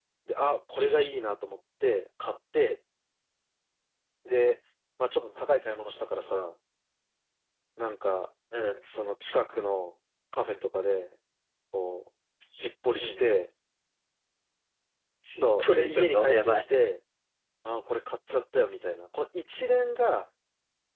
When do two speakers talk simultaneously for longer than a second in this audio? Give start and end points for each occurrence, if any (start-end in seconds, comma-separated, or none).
15.4-16.6